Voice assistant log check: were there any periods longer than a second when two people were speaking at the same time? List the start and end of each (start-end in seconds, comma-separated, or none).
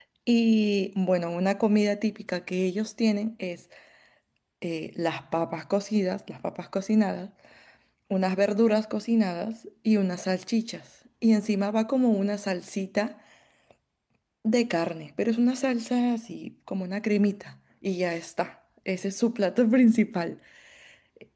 none